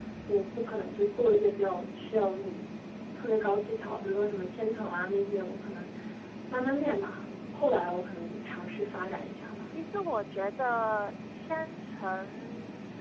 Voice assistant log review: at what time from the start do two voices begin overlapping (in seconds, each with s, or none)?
none